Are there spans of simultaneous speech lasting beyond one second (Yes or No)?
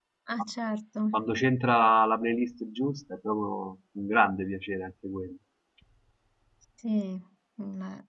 No